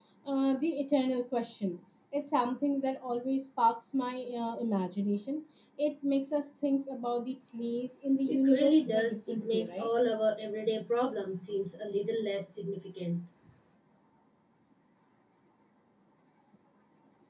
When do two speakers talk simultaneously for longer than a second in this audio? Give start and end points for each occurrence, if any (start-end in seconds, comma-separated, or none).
8.2-9.9